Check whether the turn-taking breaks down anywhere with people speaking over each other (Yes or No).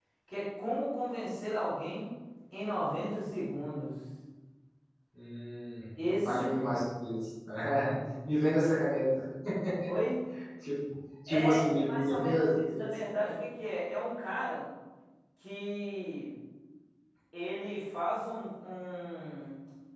Yes